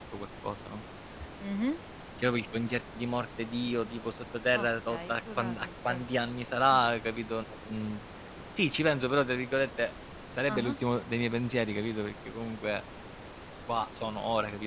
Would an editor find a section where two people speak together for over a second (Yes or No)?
Yes